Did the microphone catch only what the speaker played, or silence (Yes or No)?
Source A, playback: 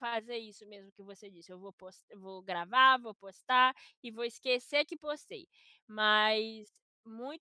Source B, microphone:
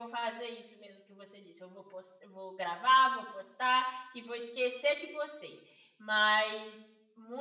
Yes